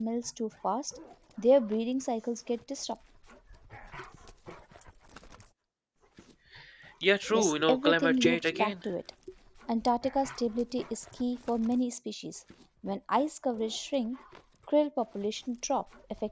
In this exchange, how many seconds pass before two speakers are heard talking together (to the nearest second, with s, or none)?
7 s